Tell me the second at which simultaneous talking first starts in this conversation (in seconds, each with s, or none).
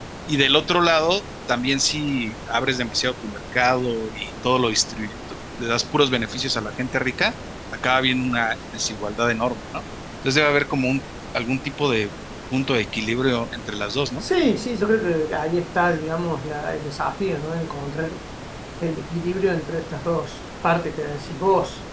none